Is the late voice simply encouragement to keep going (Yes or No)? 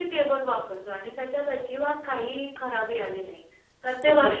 No